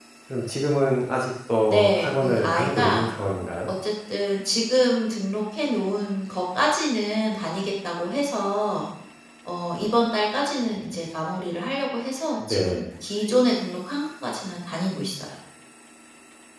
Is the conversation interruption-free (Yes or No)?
No